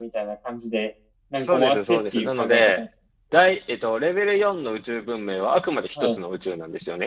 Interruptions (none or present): present